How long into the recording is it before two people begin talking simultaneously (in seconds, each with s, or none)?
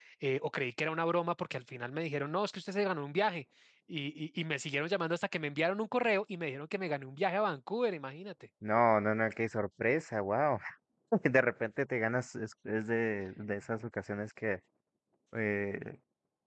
none